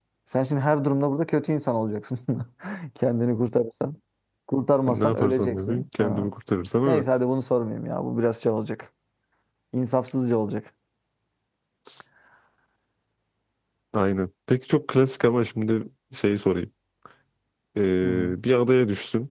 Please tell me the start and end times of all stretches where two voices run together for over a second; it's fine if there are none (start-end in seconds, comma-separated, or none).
4.9-6.3